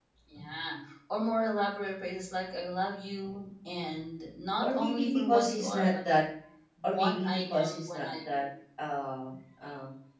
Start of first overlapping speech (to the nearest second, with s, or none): 5 s